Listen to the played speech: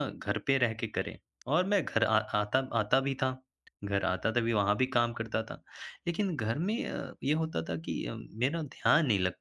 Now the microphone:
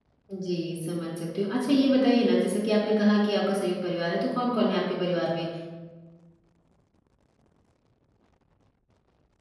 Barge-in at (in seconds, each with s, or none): 0.3 s